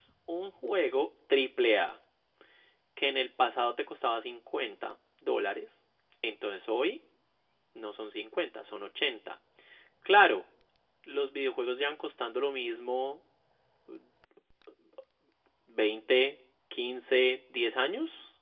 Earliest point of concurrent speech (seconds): none

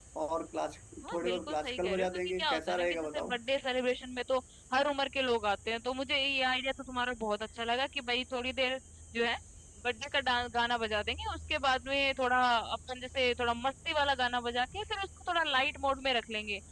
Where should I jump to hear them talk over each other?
1.0 s

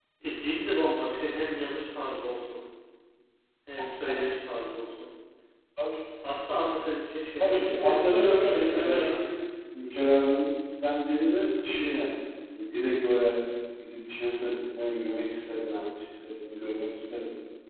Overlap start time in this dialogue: 7.4 s

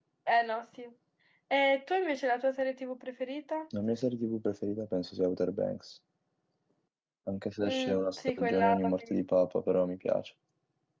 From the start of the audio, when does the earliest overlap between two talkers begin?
7.7 s

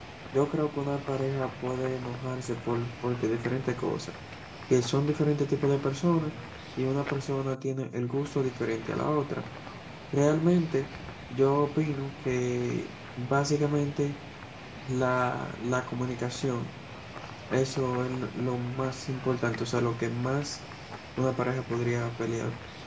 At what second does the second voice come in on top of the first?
none

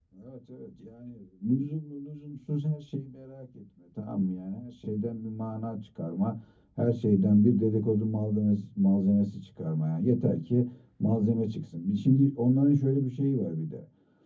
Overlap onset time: none

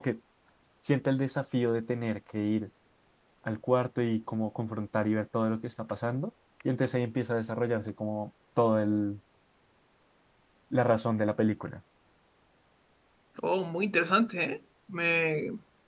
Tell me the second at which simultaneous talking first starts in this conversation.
none

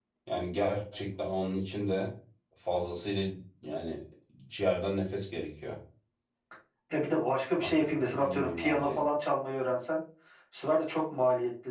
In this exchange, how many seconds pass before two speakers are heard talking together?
7.5 s

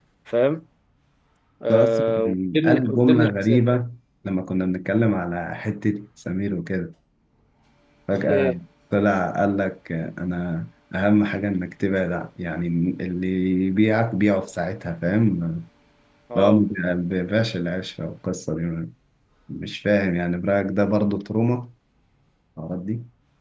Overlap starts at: 1.7 s

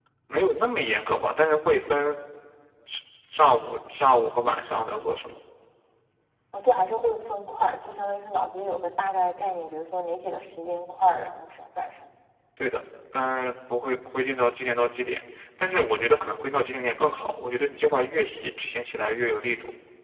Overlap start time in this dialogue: none

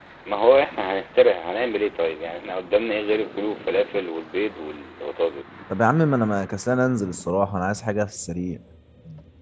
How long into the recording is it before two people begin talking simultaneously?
none

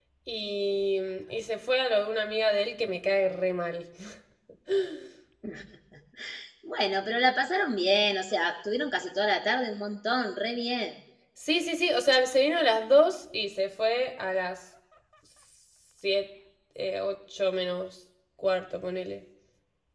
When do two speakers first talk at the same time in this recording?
none

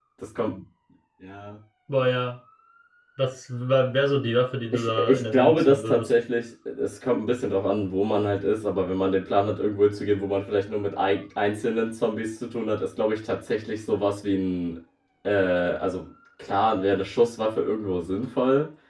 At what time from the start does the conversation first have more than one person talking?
4.7 s

